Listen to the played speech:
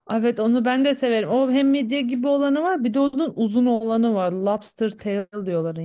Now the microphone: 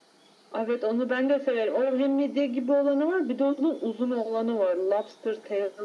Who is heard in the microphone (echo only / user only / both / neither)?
echo only